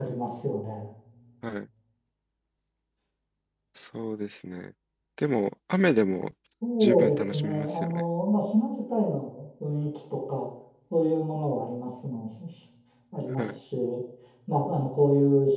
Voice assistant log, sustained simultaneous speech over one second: present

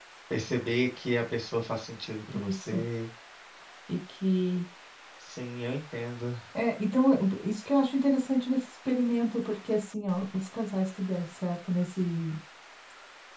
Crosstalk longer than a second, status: none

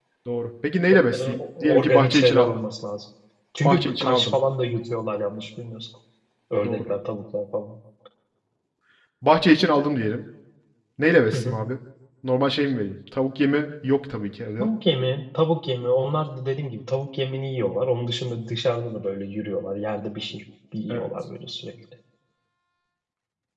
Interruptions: present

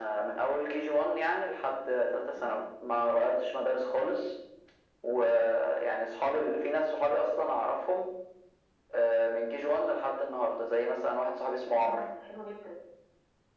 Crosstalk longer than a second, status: none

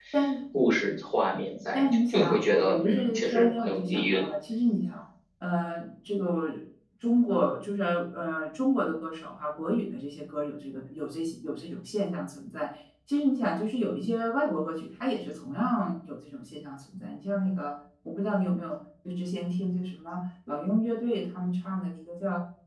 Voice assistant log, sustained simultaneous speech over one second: present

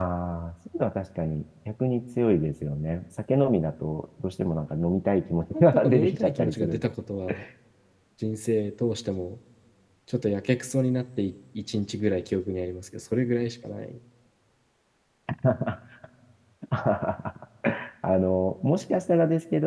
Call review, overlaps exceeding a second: present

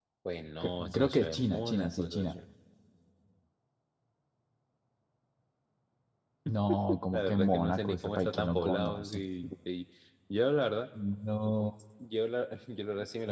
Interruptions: present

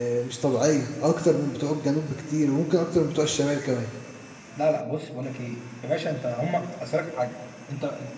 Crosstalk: none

